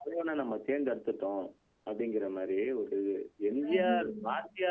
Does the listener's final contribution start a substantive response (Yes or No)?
No